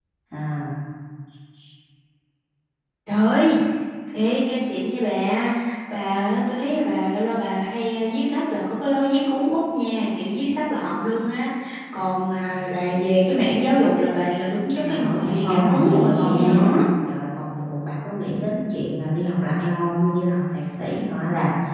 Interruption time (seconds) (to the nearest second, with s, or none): 15 s